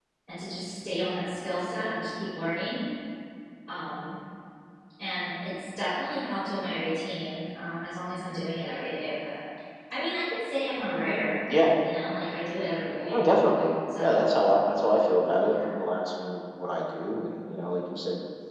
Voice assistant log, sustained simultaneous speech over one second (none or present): none